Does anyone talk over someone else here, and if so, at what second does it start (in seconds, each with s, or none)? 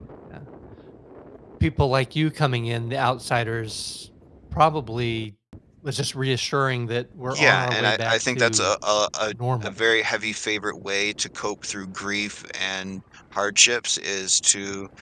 7.3 s